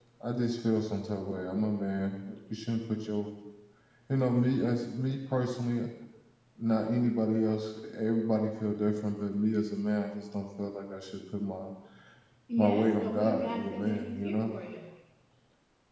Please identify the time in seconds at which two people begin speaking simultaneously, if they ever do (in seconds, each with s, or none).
12.6 s